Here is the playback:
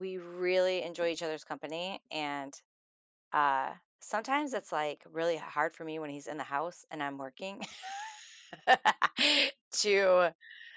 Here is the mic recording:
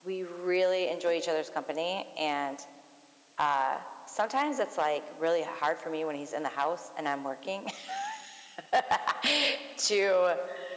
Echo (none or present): present